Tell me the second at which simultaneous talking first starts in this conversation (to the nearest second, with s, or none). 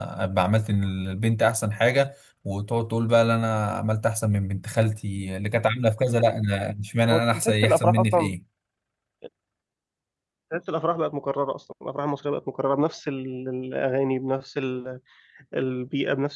7 s